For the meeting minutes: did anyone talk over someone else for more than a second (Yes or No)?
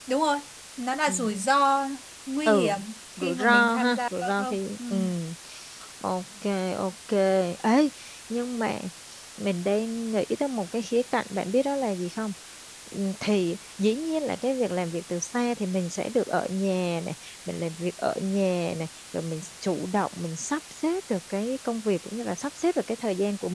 Yes